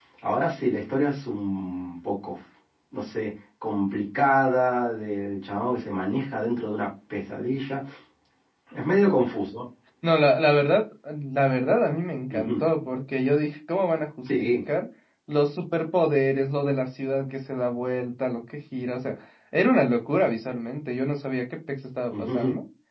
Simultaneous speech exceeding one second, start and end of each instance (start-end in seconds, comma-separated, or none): none